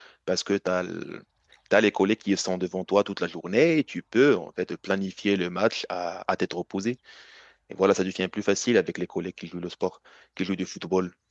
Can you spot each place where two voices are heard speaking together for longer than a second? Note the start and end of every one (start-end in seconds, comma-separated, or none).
none